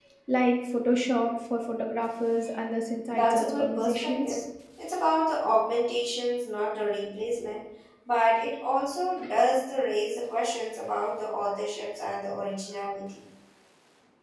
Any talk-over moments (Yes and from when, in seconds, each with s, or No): Yes, from 3.1 s